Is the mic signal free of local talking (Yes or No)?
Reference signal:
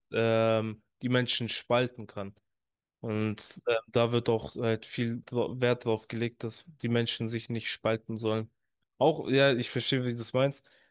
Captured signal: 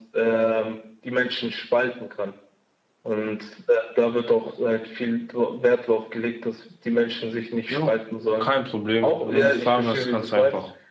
No